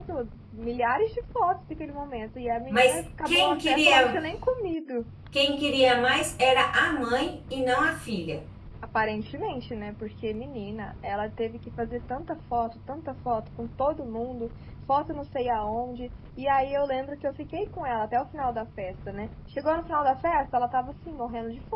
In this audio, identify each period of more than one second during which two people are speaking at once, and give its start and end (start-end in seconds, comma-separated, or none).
2.7-4.2